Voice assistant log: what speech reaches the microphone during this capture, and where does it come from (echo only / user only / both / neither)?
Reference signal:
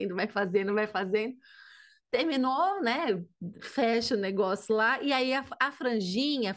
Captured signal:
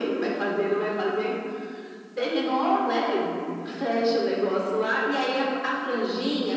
echo only